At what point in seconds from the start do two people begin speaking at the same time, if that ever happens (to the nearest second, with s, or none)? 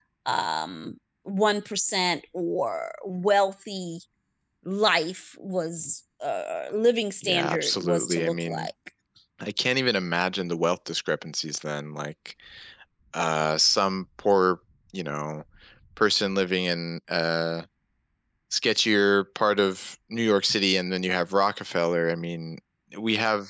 7 s